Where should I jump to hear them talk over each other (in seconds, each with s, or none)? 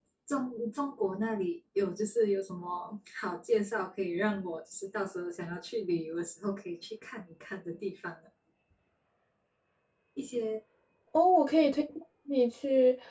none